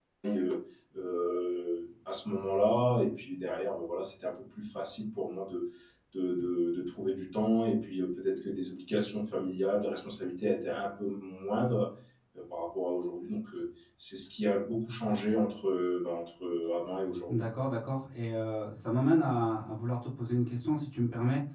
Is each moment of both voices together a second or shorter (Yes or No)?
Yes